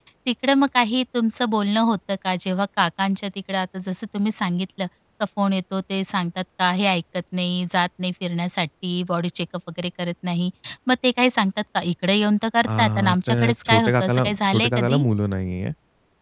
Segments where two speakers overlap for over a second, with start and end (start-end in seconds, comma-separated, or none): 12.8-15.0